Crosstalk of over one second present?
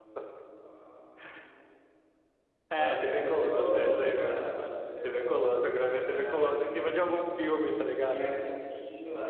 Yes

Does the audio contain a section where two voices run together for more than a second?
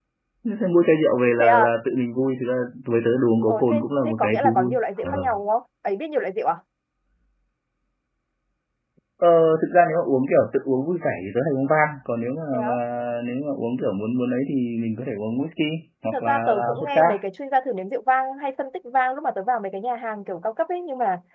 Yes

